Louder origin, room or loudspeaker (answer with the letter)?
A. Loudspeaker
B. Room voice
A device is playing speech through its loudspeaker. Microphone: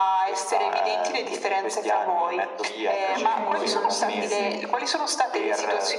A